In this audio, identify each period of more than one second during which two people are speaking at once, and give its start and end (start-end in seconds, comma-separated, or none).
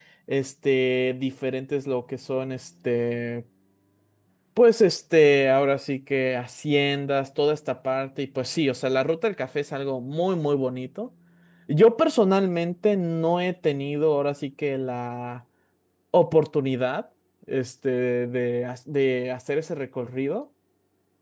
none